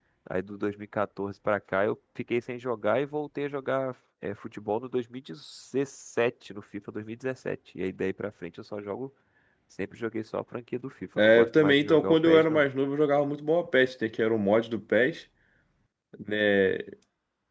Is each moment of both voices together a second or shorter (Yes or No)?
No